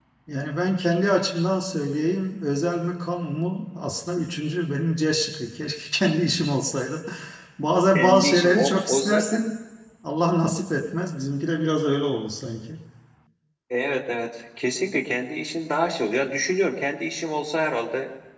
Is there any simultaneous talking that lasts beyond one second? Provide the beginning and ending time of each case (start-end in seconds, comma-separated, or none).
7.9-9.4